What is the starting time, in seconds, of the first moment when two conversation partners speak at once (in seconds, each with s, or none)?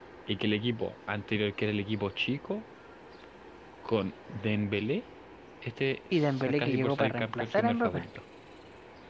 6.1 s